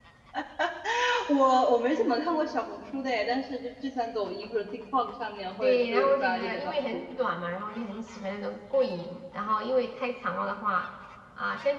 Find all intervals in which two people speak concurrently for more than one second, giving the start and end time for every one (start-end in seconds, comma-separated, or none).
5.6-7.0